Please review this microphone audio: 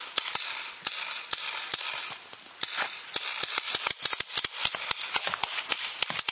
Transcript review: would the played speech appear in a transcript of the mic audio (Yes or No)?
No